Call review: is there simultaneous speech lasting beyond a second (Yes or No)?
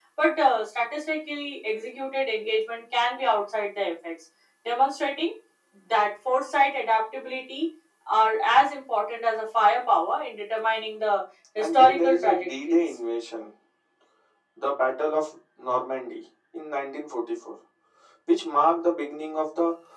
Yes